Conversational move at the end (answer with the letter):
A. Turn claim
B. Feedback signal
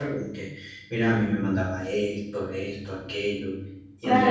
A